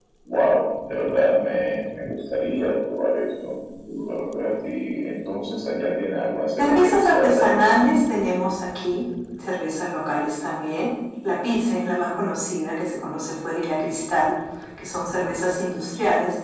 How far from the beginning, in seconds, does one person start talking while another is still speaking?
7 s

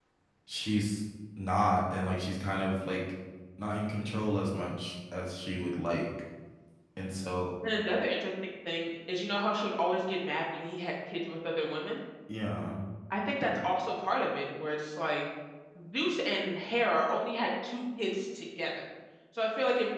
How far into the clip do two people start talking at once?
none

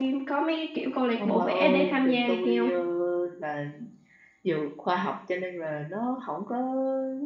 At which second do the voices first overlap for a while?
1 s

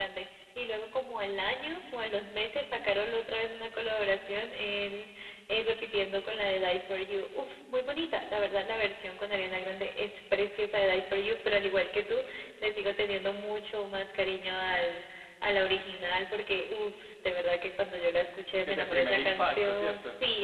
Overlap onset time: 19 s

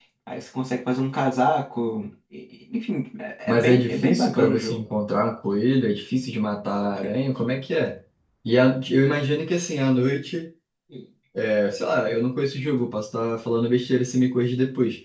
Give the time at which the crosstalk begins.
3 s

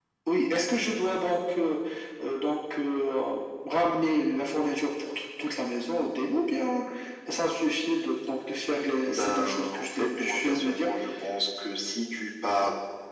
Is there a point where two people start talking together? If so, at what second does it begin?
9 s

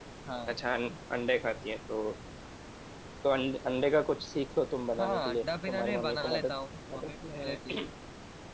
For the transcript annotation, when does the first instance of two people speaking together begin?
5 s

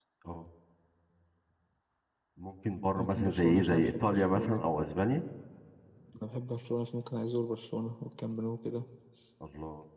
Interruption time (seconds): 3 s

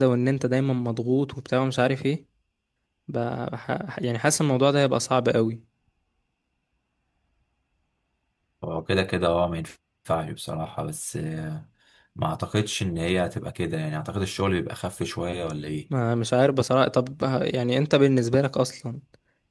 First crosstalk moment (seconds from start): none

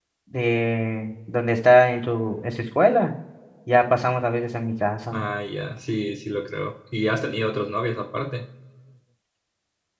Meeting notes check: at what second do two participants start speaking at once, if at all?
none

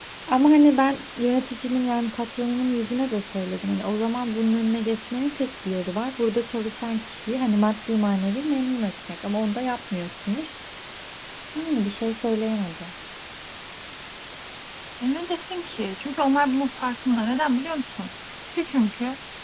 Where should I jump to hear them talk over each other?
none

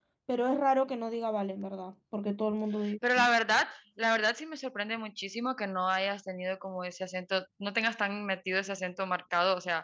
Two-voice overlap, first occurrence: none

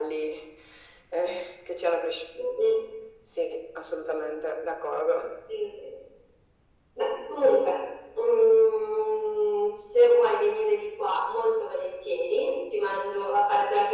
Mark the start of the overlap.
none

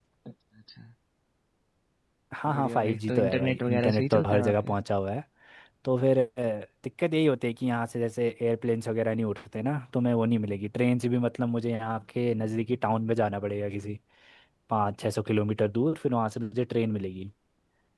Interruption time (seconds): 3 s

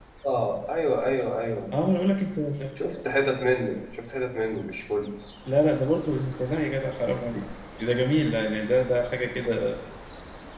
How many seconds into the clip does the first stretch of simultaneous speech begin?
none

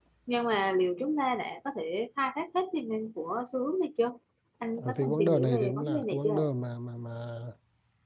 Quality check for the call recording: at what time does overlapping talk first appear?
5 s

